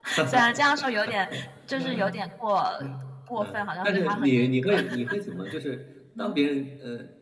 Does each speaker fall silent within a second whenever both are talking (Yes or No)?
No